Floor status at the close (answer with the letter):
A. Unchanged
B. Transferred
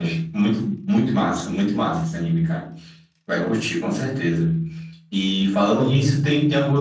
A